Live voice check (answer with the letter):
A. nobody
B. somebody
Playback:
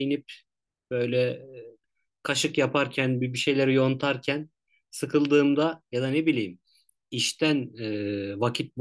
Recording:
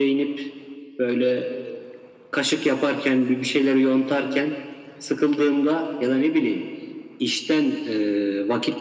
A